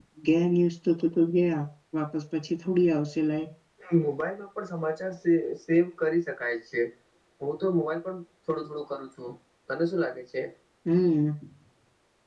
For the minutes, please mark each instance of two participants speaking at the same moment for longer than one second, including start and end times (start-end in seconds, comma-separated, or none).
none